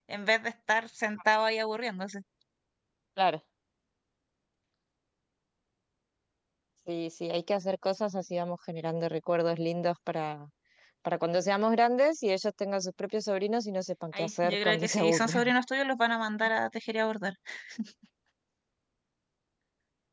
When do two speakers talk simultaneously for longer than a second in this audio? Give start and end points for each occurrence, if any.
14.1-15.5

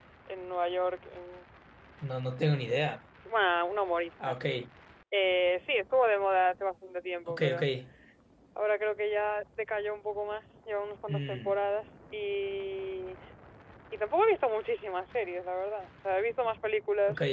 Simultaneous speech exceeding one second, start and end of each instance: none

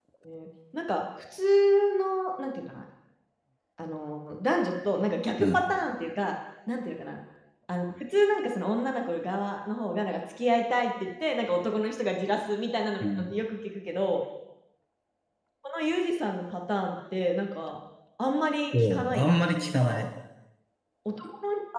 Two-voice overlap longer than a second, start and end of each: 18.7-20.1

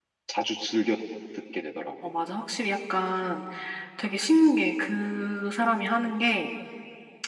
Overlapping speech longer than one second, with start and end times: none

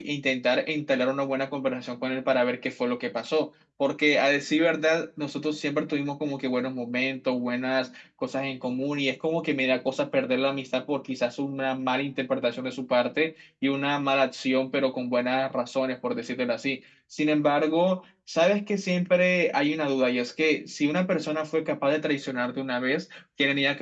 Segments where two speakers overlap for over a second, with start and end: none

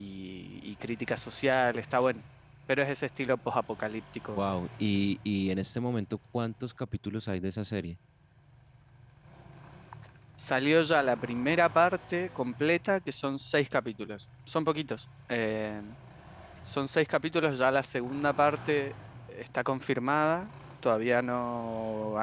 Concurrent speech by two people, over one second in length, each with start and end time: none

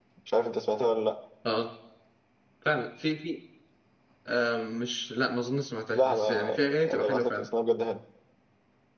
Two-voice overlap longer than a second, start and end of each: 6.0-7.5

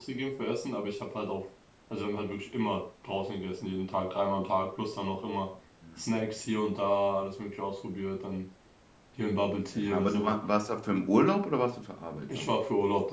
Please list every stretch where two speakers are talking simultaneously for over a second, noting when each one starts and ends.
none

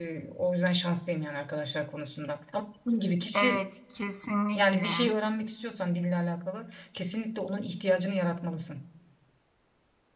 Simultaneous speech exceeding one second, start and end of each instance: none

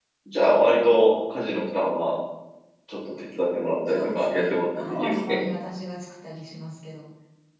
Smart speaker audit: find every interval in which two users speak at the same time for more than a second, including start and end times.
3.9-5.4

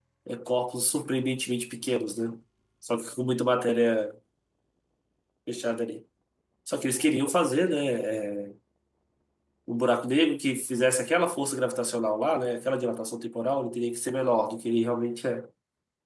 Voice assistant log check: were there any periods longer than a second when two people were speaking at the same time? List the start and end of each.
none

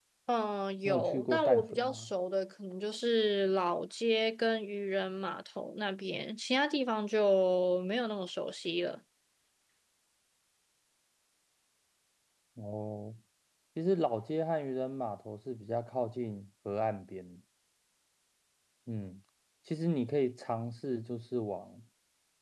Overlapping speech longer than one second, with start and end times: 0.8-2.1

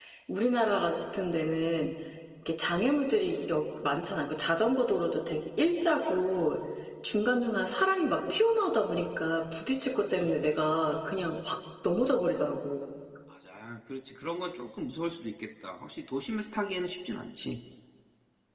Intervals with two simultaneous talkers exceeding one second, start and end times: none

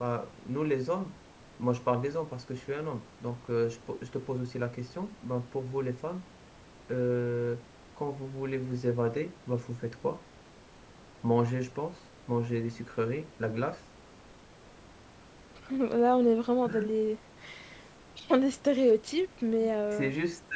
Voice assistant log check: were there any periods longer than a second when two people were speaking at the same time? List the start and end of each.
none

